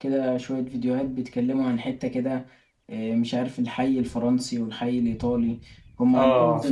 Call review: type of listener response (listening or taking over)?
listening